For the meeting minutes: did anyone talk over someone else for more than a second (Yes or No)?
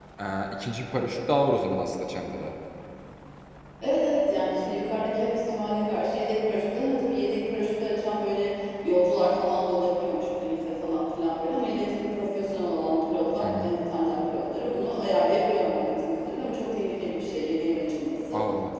No